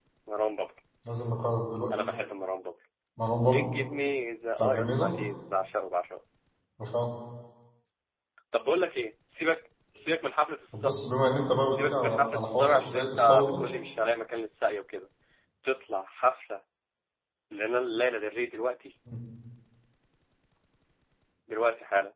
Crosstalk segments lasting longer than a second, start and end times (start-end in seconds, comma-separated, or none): 11.7-13.6